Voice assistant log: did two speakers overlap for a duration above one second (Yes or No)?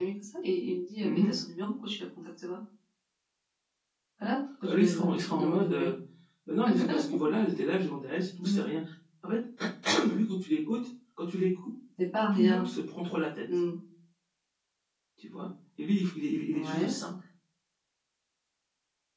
Yes